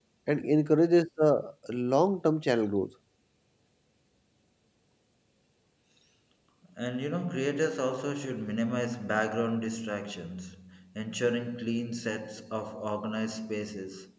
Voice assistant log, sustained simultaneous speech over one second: none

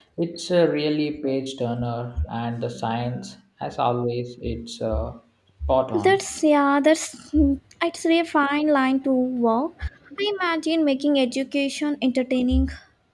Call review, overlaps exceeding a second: none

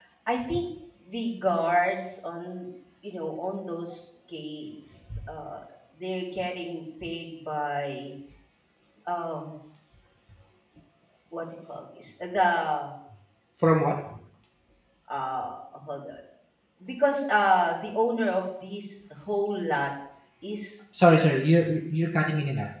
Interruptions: none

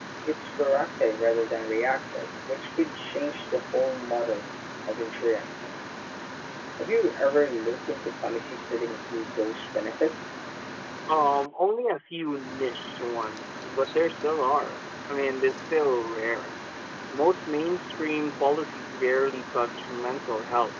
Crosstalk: none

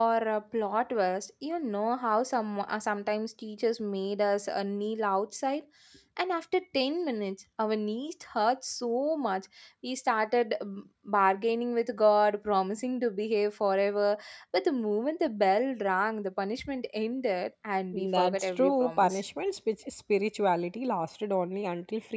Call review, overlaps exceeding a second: present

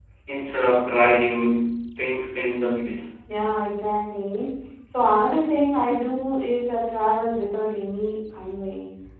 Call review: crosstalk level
none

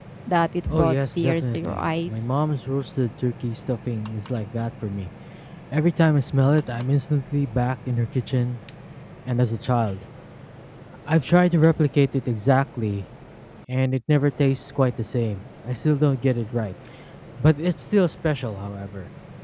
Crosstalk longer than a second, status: present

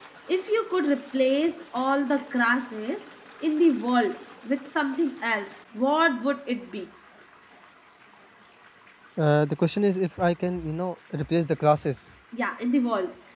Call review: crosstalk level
none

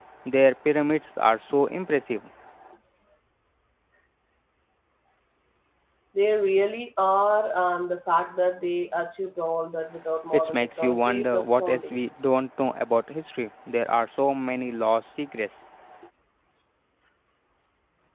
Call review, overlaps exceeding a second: present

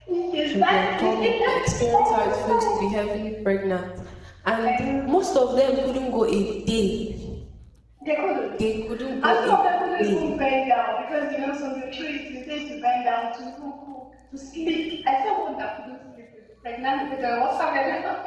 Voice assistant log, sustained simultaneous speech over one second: present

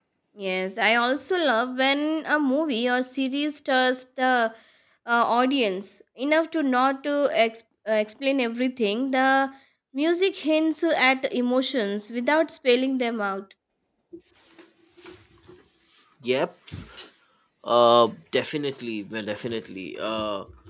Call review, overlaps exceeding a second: none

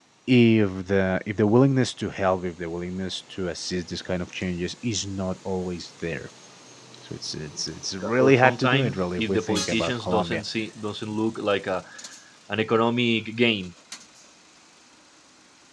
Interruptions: present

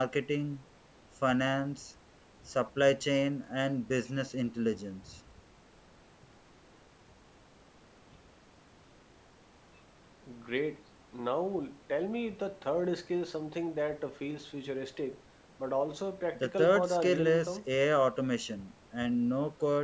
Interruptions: present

